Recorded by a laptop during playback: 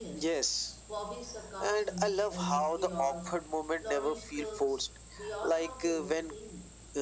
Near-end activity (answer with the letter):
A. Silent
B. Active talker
B